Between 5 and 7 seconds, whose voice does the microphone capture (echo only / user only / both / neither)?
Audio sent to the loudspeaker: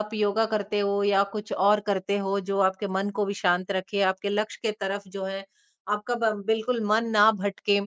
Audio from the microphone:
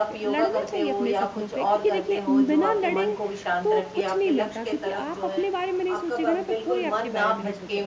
both